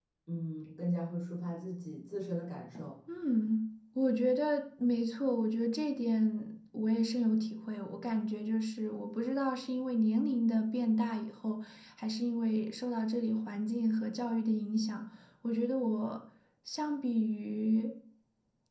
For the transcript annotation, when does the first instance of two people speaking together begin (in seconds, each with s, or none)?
none